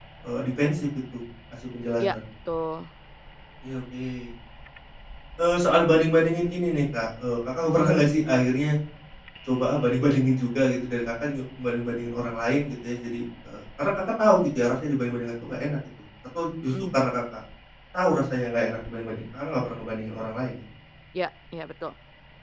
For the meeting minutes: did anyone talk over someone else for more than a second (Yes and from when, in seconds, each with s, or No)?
No